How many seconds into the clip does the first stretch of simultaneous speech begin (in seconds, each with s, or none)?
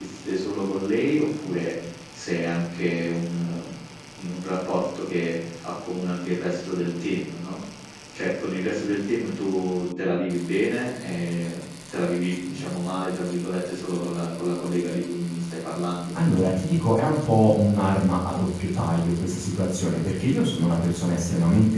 none